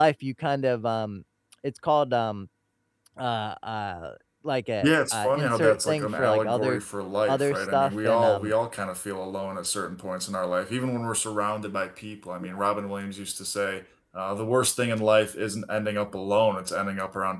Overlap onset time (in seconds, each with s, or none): 4.8 s